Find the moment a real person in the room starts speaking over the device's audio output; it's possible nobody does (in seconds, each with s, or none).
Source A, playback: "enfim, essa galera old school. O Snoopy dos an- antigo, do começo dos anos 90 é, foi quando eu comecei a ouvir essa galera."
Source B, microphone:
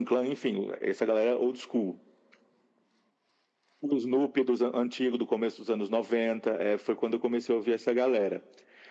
none